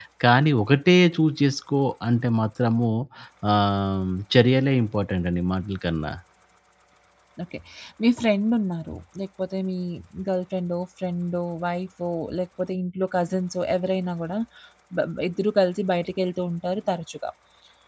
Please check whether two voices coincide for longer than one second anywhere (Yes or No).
No